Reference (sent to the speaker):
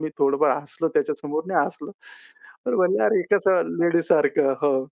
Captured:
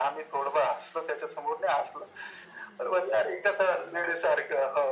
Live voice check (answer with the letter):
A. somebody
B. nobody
B